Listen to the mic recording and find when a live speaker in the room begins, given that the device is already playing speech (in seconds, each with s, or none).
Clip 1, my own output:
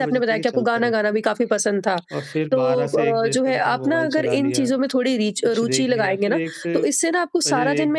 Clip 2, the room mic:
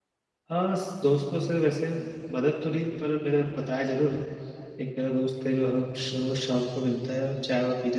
0.5 s